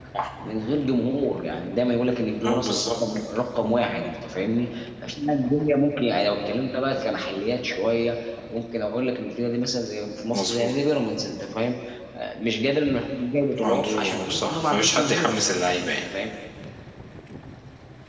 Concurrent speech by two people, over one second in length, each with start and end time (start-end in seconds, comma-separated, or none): 13.6-15.3